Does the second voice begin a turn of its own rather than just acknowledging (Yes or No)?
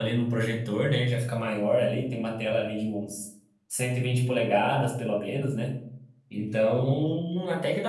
No